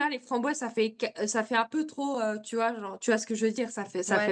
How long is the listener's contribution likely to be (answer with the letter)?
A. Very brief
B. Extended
B